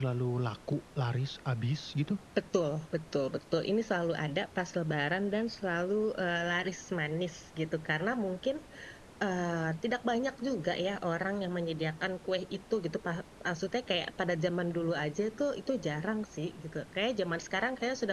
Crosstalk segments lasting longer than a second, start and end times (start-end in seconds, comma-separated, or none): none